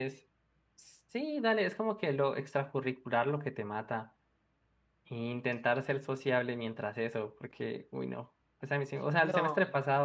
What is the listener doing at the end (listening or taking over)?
listening